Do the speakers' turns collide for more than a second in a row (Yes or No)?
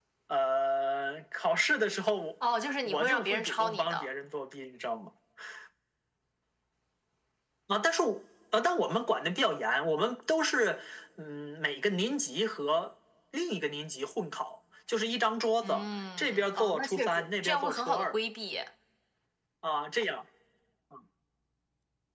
Yes